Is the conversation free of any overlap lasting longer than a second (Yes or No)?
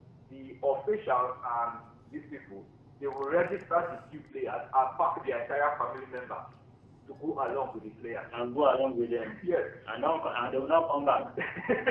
Yes